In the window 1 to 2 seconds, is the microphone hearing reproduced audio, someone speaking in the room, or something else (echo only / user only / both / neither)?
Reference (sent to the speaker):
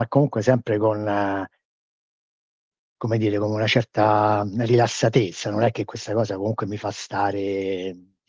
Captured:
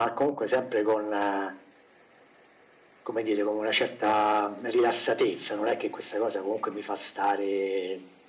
echo only